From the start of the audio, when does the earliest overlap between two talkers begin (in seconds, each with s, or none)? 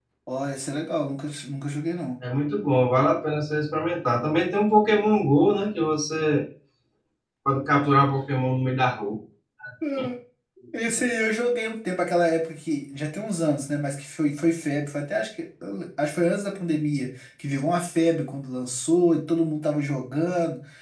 none